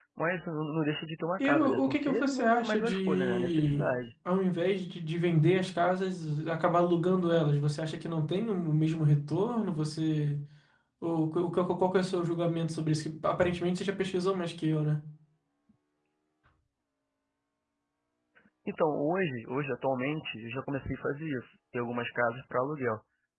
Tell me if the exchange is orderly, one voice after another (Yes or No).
No